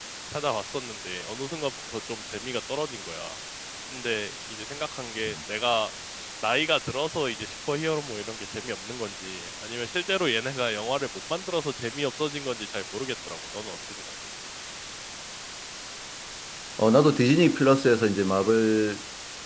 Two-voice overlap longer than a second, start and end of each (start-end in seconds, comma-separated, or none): none